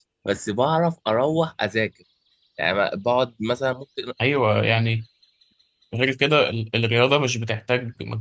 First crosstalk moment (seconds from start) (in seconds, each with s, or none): none